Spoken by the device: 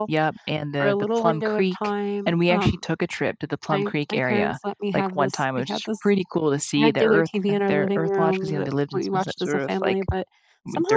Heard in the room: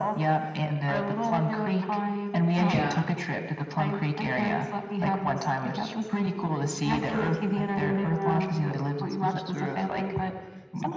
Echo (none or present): present